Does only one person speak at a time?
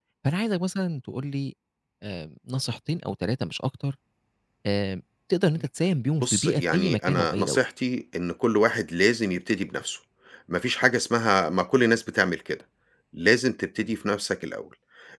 No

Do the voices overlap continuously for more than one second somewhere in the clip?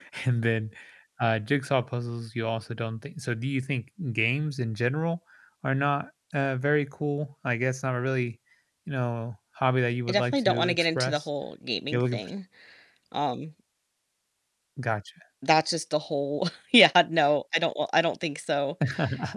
Yes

